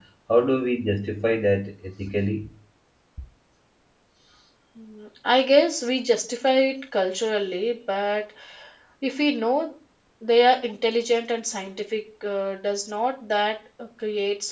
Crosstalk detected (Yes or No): No